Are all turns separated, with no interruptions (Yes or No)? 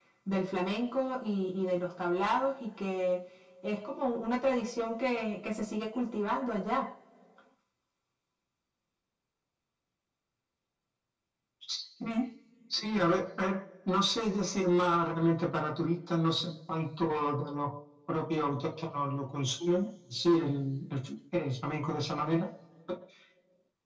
Yes